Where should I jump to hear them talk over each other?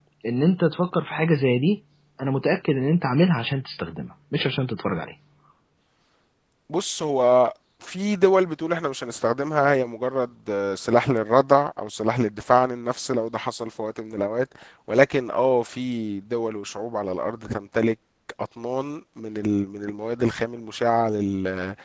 none

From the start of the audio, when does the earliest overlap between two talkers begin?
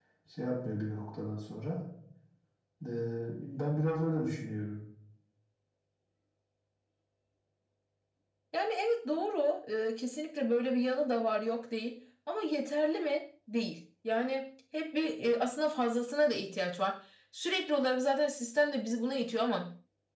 none

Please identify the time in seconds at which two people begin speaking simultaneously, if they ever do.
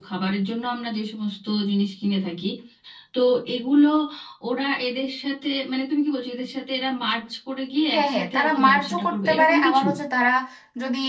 7.9 s

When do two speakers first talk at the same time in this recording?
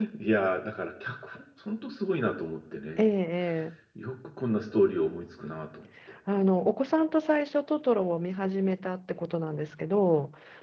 none

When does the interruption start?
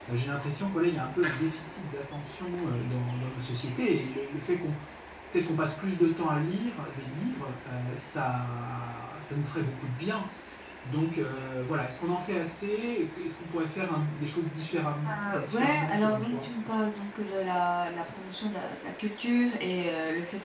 15.0 s

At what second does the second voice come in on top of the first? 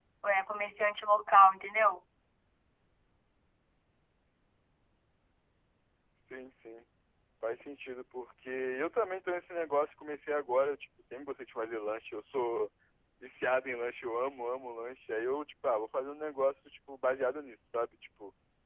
none

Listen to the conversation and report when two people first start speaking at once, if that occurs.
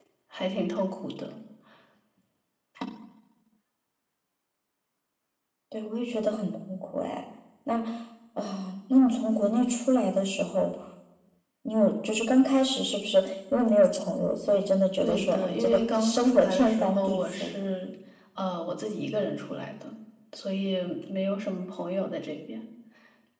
15.0 s

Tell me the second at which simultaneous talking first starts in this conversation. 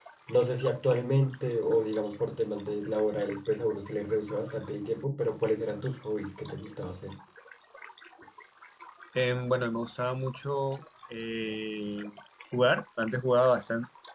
none

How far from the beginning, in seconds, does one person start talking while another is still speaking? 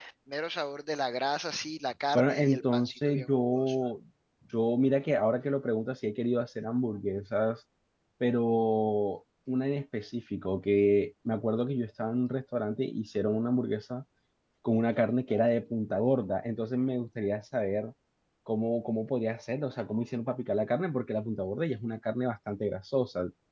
2.2 s

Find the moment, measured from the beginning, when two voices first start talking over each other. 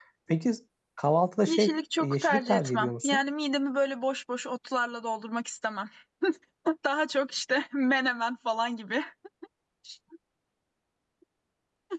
1.5 s

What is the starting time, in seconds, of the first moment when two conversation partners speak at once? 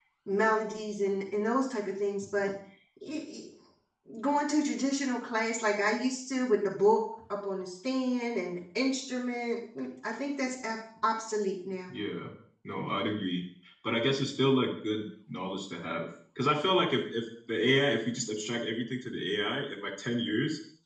none

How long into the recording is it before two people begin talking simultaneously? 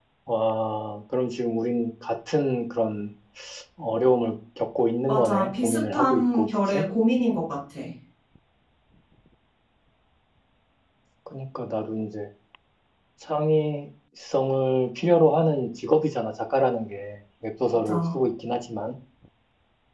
5.1 s

